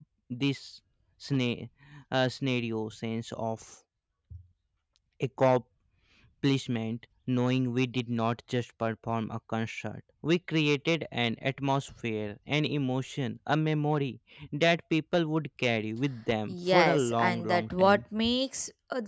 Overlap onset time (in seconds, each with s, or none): 16.5 s